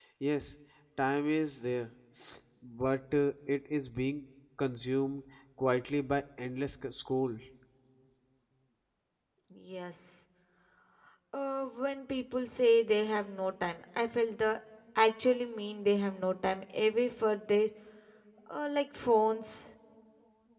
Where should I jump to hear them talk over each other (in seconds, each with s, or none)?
none